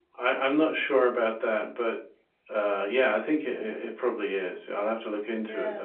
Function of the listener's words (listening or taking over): taking over